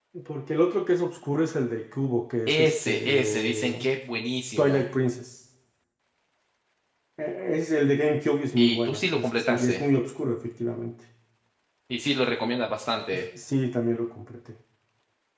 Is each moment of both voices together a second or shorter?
No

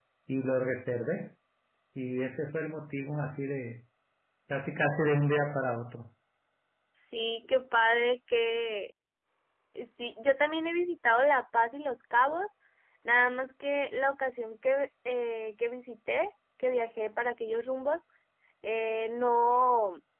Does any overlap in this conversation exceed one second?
No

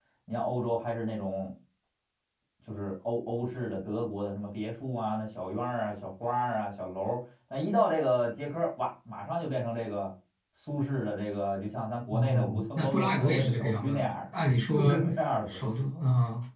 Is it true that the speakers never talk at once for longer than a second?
No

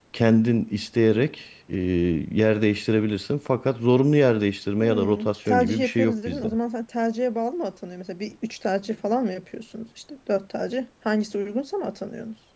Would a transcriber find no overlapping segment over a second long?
No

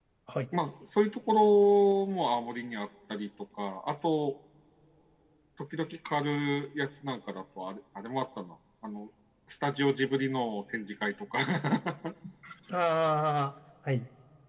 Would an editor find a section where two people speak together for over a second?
No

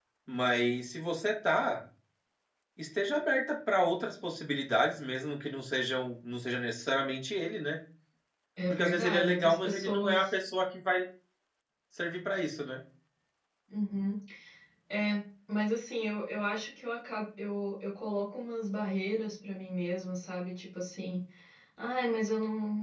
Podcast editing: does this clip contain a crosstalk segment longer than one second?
Yes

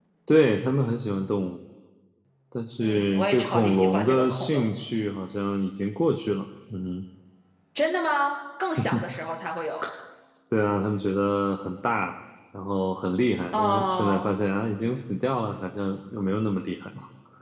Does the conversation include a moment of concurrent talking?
Yes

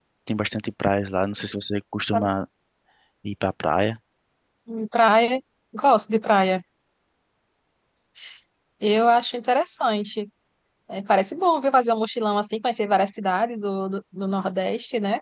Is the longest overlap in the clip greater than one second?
No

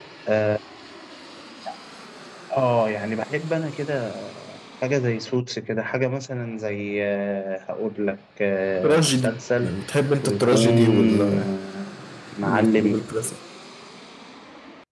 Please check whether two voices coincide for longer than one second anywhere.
Yes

